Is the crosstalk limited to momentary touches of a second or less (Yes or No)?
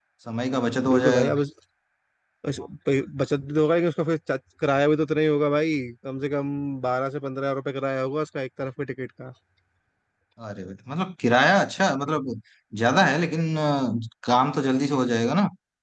Yes